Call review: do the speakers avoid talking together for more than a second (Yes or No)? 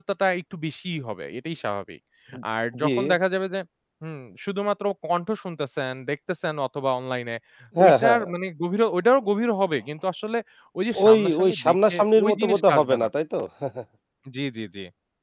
No